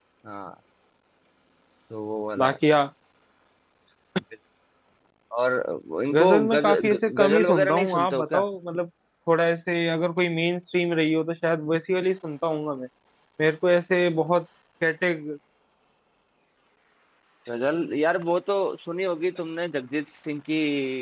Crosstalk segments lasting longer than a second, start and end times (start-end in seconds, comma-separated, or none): 6.1-8.4